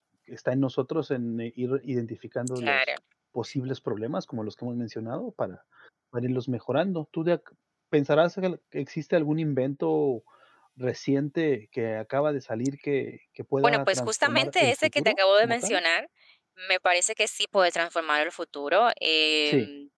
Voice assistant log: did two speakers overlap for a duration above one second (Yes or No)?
Yes